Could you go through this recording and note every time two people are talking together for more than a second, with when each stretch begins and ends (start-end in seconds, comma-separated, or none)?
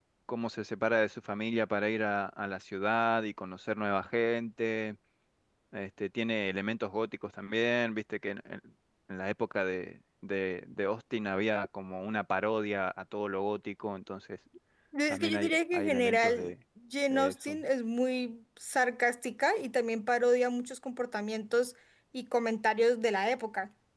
15.1-16.5